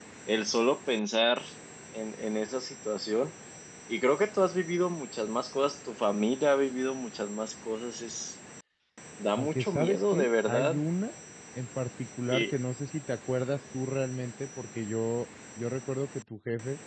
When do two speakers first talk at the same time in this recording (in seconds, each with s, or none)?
9.4 s